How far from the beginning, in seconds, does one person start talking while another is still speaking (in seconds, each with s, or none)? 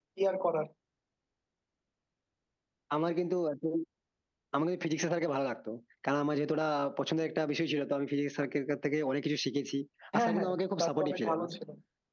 10.2 s